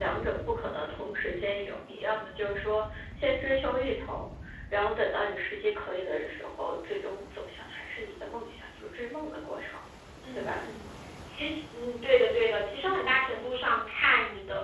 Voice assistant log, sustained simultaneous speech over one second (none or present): none